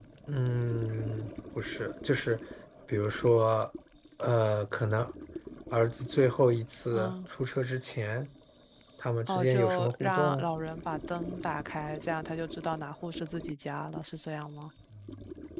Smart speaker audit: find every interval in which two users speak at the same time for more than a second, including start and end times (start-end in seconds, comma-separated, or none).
9.3-10.5